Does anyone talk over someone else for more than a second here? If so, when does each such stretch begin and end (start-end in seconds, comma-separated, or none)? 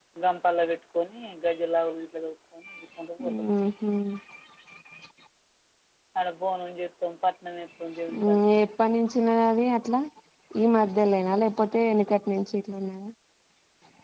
none